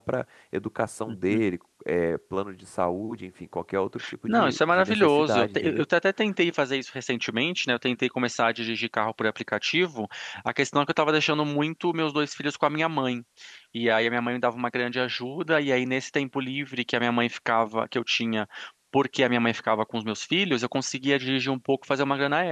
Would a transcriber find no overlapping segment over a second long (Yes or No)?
No